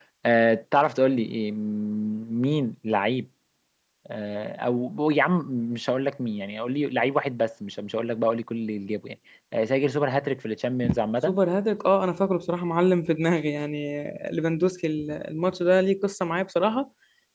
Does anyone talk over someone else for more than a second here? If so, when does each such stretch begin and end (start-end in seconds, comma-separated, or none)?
none